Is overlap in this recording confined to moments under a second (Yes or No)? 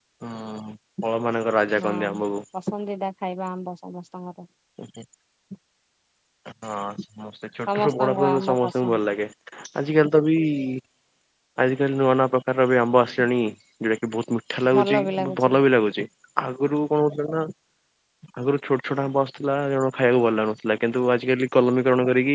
No